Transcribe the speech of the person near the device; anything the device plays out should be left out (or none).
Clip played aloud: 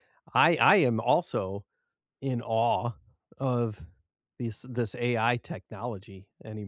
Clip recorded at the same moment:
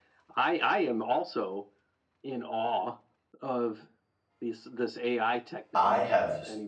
I have